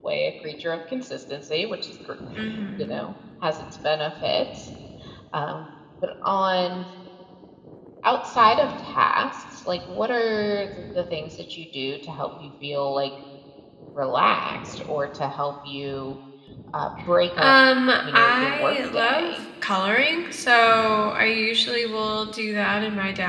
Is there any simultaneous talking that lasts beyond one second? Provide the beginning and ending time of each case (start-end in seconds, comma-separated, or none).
18.1-19.3